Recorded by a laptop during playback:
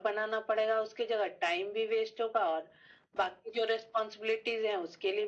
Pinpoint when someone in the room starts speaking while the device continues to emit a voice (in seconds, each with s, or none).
none